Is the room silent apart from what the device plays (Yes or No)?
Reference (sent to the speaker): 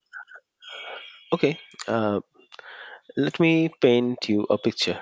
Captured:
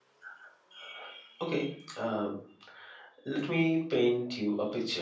Yes